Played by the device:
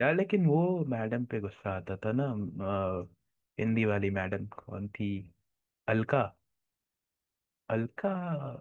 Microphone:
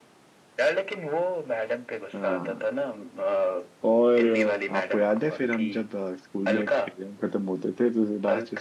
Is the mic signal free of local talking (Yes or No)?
No